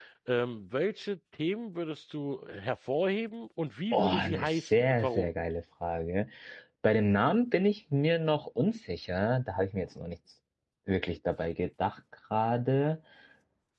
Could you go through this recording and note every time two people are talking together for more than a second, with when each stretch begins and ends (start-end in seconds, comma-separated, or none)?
3.9-5.3